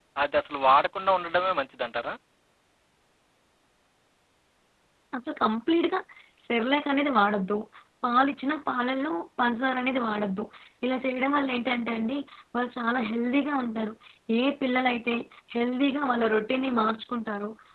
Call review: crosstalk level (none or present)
none